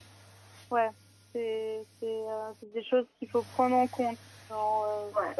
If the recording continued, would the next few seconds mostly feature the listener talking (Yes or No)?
No